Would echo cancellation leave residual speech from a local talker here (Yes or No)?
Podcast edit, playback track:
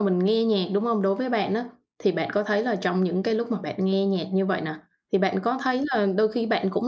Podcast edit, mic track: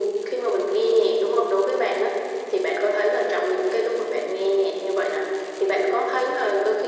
No